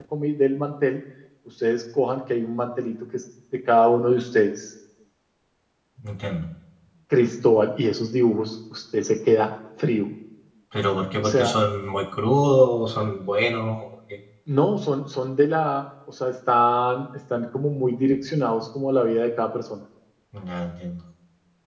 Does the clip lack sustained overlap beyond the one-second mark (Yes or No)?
Yes